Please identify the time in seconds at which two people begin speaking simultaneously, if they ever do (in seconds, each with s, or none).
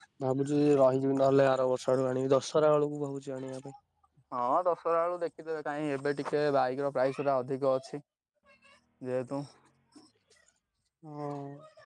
none